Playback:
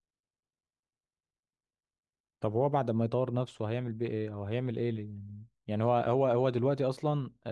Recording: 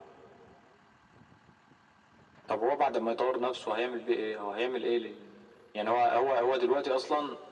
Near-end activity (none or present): none